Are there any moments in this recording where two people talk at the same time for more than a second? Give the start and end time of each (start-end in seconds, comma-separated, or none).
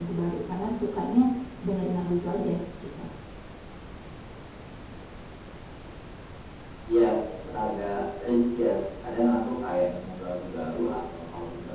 none